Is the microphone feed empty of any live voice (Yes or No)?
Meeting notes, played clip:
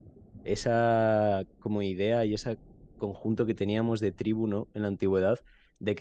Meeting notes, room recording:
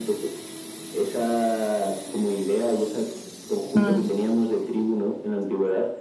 No